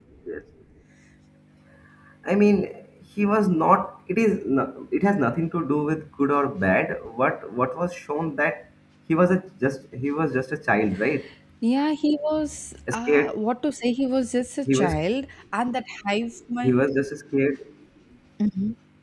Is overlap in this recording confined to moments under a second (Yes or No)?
Yes